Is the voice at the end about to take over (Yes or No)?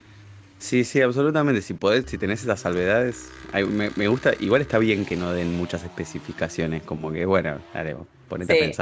Yes